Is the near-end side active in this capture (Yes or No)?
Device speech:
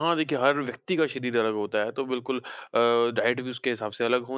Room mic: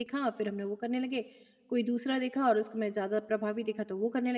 Yes